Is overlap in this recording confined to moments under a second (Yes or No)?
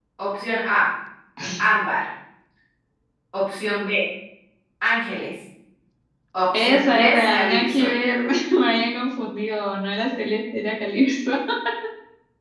No